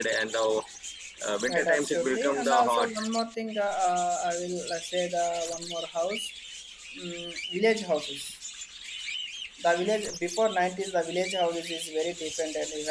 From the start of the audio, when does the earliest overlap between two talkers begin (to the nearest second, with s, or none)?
1 s